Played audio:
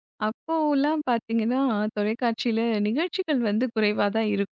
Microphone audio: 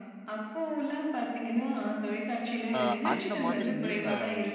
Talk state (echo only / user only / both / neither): both